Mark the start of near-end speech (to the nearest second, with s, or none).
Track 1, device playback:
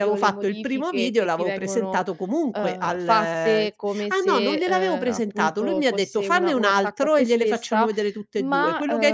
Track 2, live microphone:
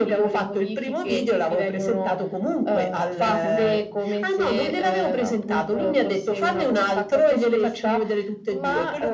3 s